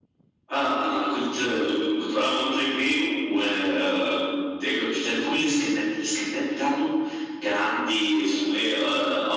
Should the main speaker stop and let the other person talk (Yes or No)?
No